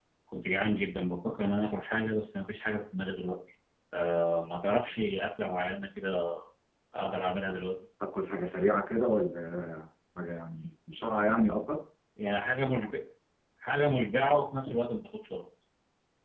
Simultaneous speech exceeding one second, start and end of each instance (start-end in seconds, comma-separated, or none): none